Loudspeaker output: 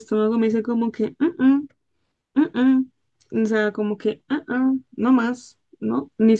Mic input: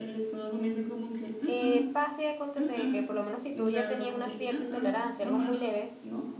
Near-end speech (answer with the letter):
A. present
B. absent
A